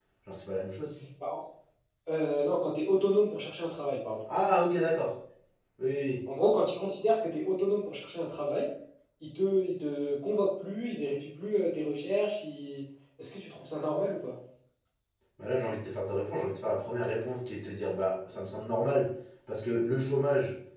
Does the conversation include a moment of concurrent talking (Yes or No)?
No